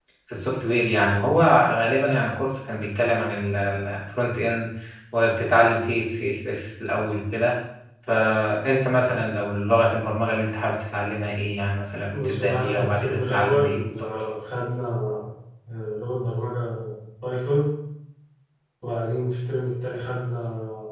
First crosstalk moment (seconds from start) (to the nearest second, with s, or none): 12 s